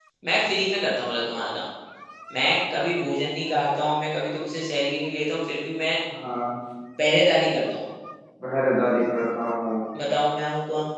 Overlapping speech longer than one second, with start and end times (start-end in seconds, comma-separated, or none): none